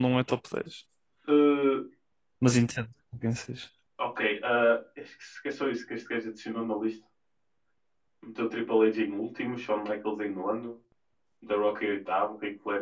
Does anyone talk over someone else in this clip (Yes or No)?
No